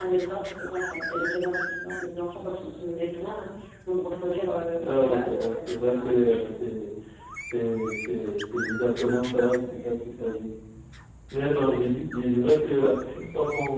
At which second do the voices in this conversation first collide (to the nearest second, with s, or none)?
5 s